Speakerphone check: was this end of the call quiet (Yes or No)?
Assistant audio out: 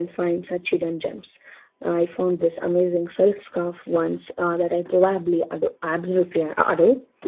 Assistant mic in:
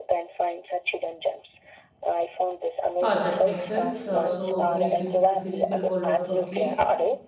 No